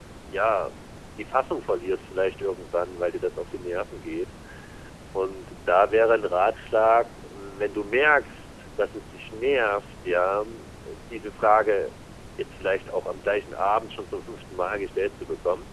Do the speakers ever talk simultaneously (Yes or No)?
No